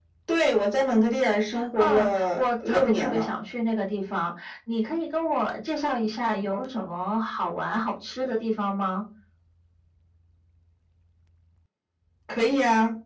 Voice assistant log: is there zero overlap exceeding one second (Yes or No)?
No